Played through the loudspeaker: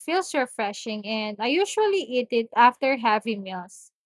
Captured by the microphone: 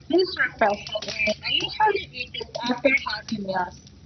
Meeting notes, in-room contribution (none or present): none